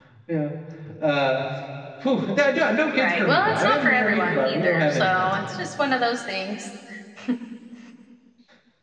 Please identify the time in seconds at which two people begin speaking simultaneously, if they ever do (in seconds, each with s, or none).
3.0 s